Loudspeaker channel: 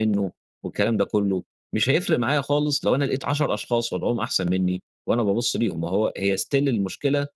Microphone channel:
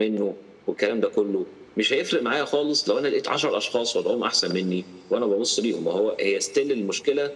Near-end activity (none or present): none